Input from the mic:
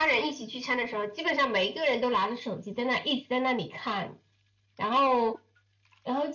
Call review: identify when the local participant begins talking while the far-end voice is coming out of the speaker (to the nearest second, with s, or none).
none